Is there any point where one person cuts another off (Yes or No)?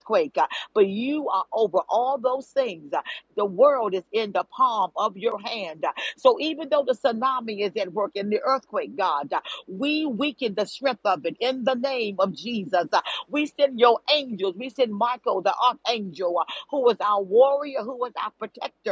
No